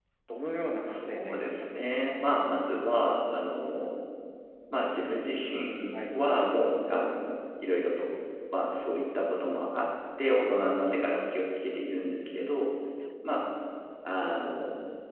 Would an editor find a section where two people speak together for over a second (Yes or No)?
Yes